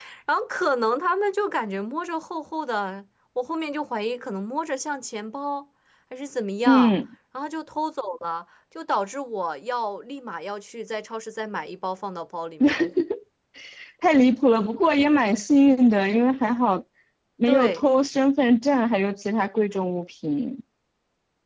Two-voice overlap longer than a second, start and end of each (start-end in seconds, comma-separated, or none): none